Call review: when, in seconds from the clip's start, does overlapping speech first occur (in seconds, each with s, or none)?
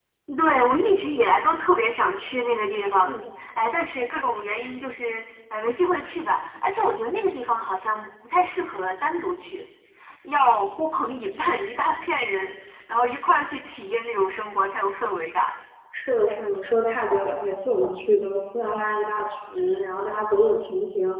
none